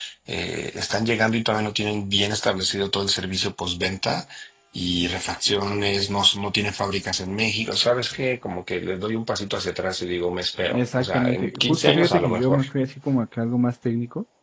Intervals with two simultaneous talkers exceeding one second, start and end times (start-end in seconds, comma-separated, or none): 10.7-12.6